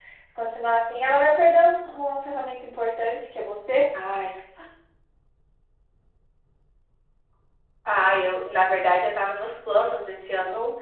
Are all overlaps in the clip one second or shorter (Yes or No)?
Yes